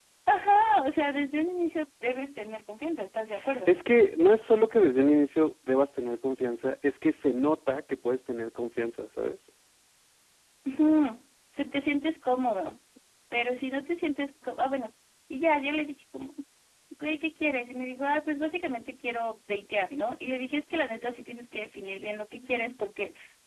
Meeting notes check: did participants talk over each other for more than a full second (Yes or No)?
No